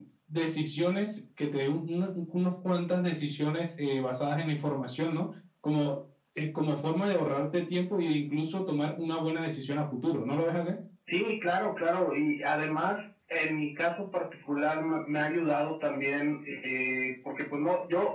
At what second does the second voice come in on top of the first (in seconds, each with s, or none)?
none